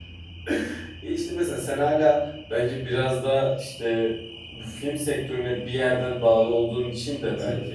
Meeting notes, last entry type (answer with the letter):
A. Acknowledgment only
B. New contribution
A